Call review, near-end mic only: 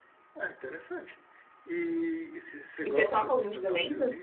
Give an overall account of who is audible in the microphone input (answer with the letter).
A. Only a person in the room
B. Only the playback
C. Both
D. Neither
C